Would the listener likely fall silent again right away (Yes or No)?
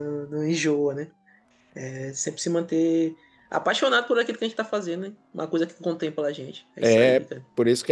No